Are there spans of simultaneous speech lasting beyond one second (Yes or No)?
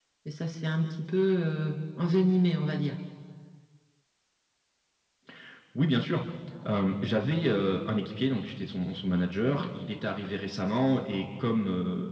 No